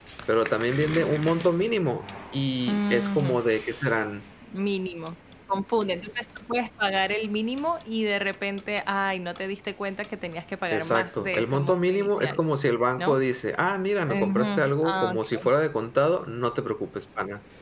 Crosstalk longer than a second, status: present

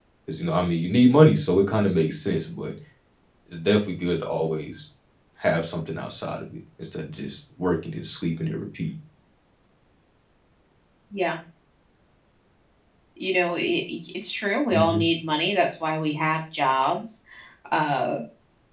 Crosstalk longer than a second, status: none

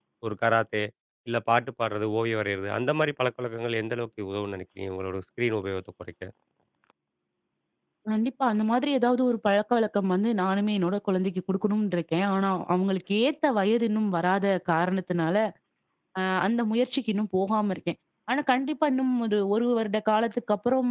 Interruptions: none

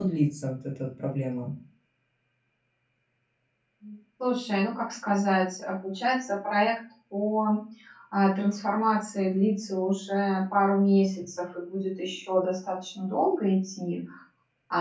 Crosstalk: none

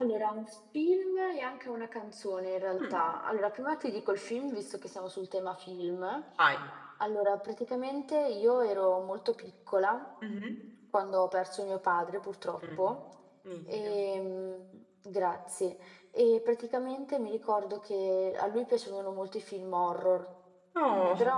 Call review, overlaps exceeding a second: none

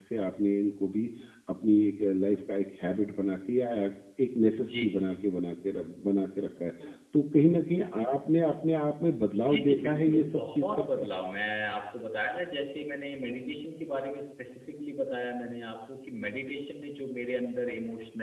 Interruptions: present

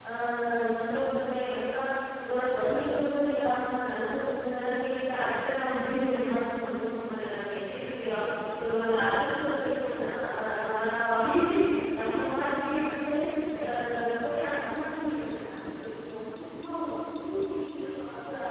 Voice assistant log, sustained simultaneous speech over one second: none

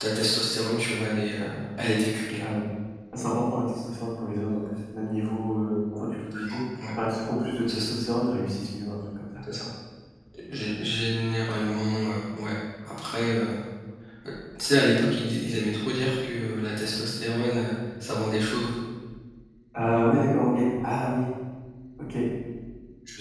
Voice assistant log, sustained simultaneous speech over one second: none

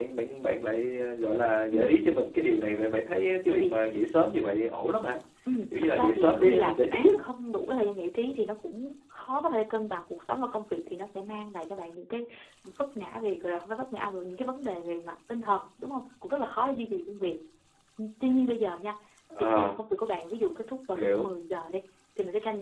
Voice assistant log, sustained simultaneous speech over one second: present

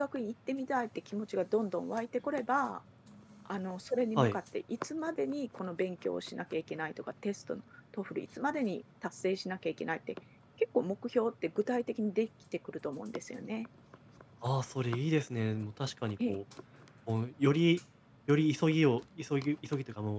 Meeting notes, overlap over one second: none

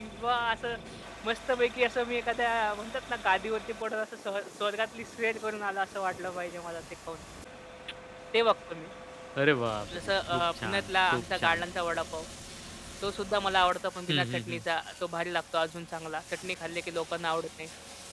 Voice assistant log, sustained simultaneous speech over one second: present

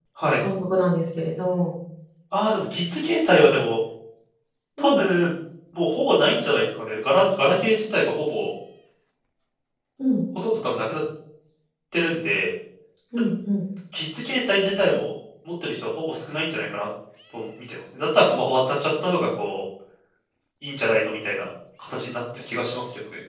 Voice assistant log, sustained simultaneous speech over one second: none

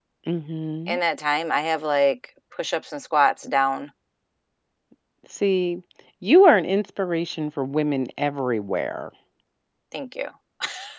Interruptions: none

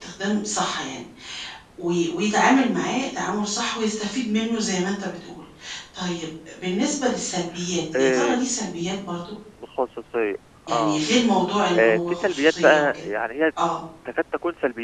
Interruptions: present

